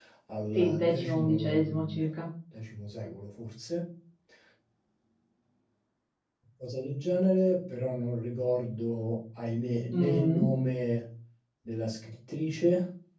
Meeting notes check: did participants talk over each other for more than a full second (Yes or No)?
Yes